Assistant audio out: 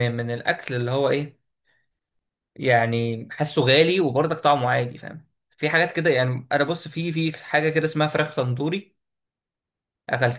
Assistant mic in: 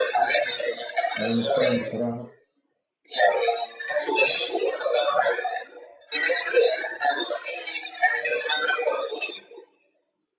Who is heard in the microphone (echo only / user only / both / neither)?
both